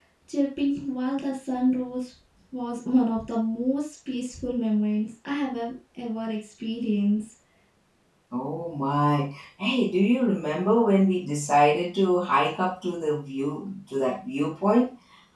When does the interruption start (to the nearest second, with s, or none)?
none